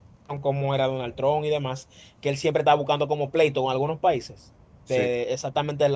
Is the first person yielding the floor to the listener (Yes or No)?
No